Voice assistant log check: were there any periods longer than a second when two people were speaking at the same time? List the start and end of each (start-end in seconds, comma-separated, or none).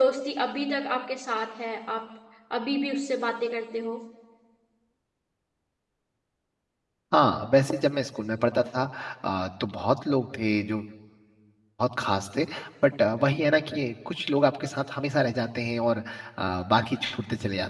none